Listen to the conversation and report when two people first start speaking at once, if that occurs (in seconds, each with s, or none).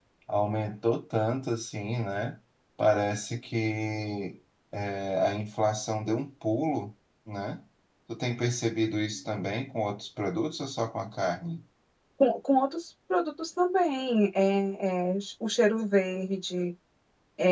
none